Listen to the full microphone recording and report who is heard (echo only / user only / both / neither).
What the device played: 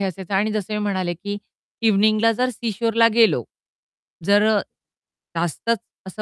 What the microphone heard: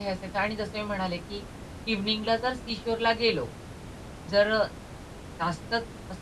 echo only